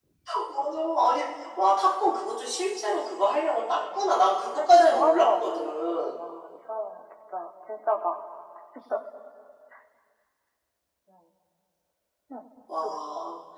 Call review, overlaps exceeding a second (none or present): present